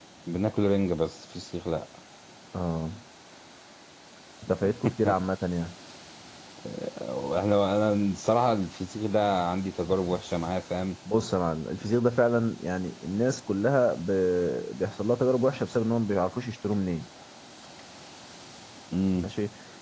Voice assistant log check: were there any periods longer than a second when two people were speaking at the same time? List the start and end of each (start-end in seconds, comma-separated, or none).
none